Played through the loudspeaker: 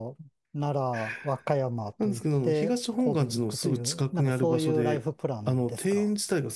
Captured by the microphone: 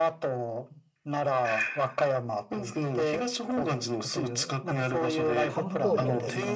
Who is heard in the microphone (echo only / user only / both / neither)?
both